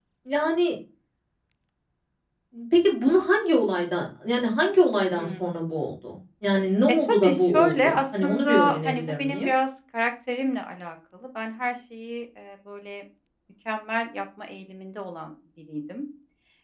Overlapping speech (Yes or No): Yes